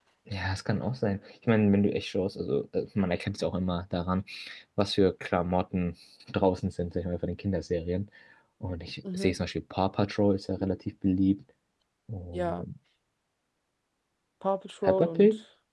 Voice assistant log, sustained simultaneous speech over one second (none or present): none